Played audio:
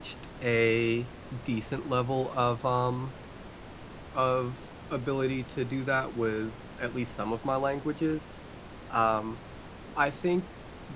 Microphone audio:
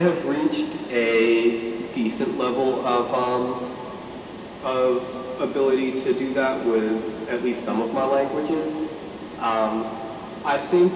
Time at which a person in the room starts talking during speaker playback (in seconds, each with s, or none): none